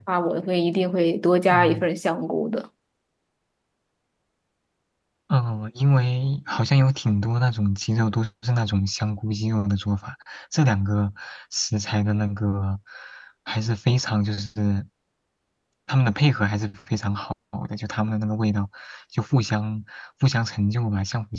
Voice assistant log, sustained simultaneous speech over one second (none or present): none